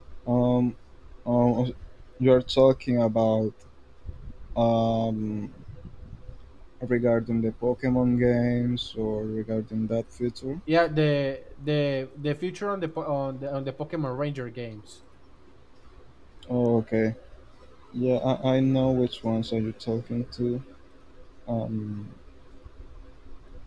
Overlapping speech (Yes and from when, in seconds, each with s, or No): No